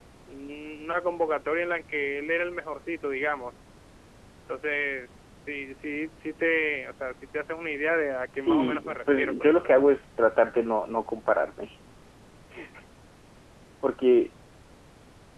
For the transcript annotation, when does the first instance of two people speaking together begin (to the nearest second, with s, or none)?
8 s